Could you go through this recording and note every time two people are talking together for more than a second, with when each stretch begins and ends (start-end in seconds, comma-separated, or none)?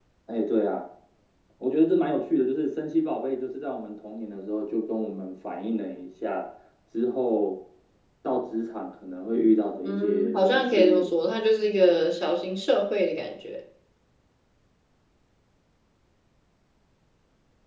9.8-11.1